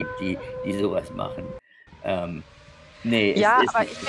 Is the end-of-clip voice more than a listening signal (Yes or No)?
Yes